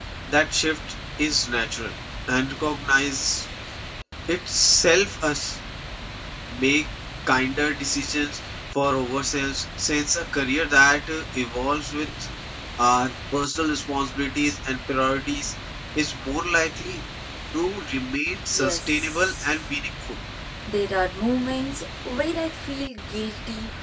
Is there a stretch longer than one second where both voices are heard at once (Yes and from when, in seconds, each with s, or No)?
Yes, from 18.3 s